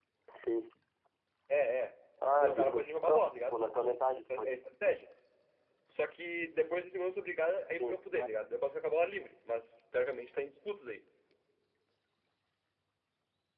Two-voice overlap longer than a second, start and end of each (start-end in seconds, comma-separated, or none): 2.4-3.6